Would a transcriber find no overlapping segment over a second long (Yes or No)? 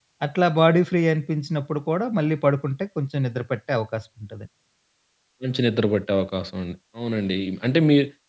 Yes